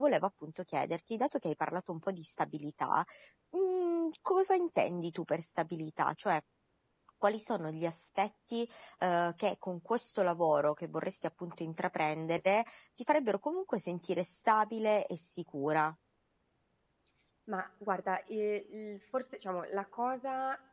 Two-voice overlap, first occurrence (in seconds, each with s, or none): none